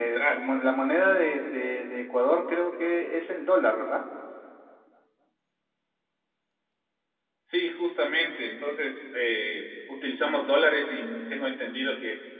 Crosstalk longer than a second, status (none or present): none